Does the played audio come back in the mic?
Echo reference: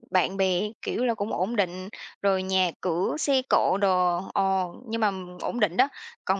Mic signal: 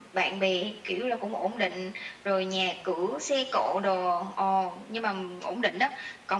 Yes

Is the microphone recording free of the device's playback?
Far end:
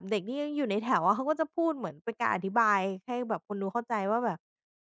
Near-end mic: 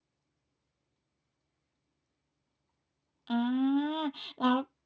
Yes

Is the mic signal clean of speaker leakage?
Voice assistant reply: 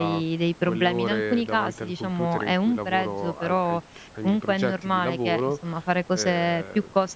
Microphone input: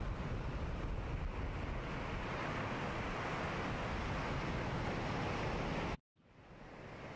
Yes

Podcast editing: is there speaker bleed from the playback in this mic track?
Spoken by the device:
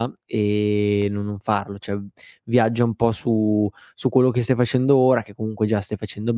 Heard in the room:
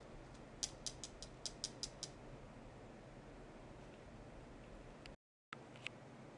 No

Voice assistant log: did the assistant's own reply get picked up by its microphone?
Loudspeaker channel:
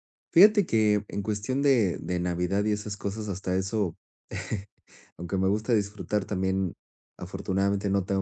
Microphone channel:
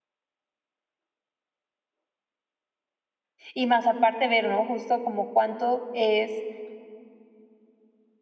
No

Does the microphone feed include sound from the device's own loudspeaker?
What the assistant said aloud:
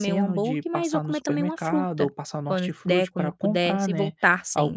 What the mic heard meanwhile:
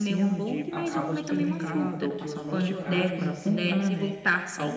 Yes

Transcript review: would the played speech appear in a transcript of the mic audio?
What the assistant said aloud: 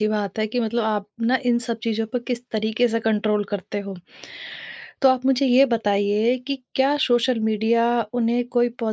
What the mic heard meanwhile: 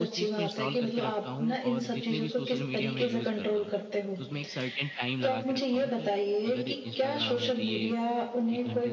Yes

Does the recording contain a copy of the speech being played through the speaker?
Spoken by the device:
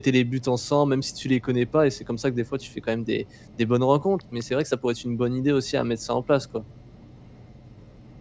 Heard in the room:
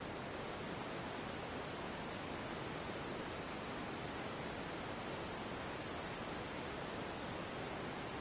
No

